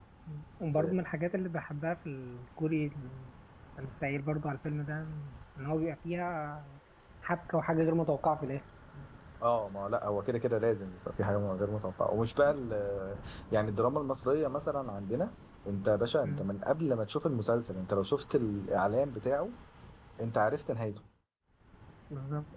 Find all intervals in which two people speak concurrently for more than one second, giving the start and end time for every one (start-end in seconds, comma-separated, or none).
none